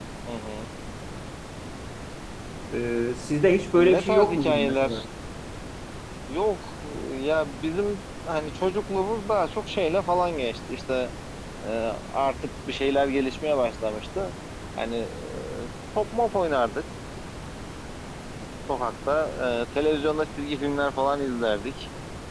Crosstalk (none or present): present